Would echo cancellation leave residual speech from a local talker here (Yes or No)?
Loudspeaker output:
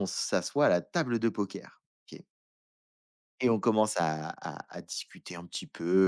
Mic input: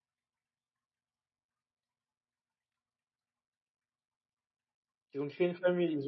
Yes